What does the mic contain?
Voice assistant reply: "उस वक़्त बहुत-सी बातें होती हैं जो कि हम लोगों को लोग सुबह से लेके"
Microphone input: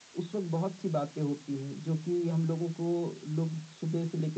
echo only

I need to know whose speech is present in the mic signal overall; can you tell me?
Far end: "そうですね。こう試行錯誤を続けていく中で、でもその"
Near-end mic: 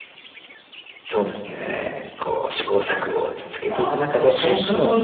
both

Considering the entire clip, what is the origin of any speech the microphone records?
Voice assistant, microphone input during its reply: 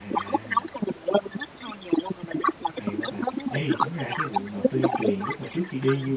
both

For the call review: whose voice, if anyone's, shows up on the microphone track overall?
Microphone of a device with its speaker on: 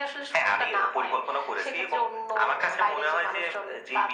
echo only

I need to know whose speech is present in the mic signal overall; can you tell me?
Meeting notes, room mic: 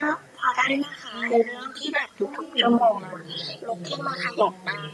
both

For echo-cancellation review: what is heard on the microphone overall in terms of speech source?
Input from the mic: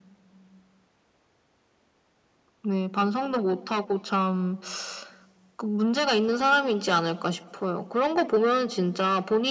echo only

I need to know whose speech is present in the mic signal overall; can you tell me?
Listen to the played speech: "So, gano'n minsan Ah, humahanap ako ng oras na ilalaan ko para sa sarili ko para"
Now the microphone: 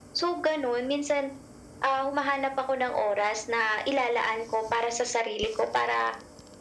echo only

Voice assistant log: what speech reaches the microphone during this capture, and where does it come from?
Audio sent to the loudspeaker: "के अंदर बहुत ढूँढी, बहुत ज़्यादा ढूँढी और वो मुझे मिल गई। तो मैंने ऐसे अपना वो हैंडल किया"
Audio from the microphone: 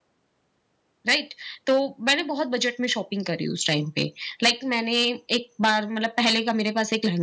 user only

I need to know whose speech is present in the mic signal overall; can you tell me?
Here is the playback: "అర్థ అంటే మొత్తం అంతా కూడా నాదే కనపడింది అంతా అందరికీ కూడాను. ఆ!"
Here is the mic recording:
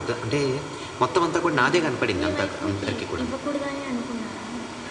both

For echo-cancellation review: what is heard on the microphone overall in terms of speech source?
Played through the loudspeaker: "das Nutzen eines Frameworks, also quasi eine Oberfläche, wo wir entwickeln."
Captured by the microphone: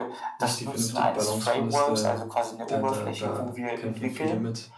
both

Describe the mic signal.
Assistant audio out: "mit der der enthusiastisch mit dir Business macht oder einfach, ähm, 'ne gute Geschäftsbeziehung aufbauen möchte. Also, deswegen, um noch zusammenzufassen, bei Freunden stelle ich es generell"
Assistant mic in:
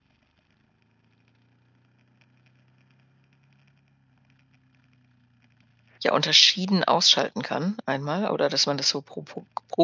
user only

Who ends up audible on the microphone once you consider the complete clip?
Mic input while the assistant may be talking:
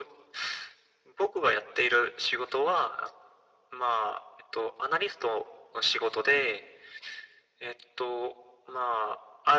echo only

